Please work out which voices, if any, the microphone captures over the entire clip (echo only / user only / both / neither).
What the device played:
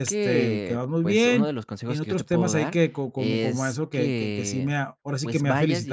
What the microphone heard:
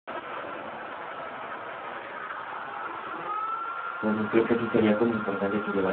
user only